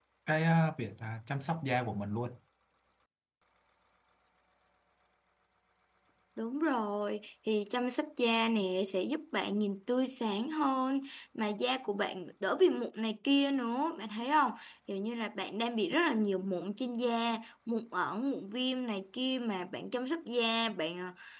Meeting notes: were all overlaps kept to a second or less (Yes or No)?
Yes